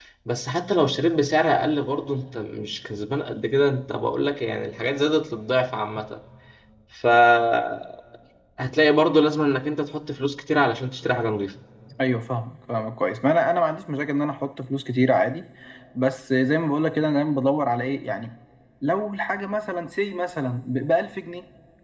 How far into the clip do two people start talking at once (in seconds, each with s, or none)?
none